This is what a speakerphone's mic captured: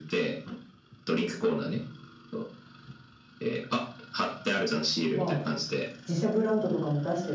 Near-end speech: present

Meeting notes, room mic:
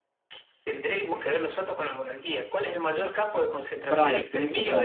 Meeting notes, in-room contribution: present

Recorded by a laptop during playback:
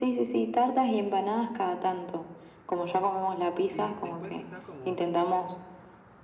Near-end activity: present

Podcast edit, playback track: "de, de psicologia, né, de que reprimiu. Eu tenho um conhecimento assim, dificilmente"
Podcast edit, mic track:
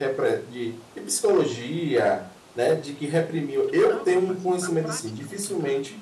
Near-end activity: present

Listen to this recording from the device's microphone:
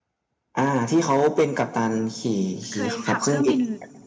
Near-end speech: present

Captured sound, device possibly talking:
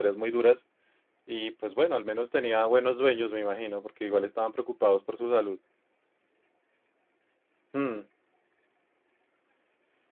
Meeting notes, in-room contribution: present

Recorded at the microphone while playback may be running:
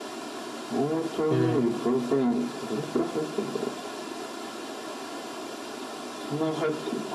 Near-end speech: present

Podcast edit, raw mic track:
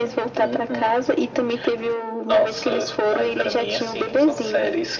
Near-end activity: none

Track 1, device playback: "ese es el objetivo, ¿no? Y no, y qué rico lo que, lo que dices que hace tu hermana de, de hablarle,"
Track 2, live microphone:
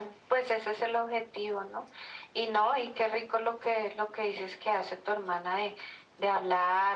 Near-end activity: none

